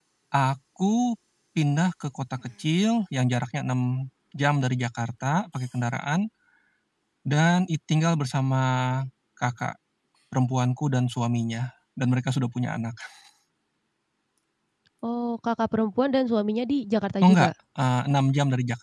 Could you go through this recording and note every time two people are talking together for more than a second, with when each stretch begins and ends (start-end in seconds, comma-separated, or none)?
none